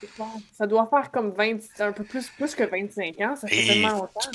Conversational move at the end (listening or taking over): taking over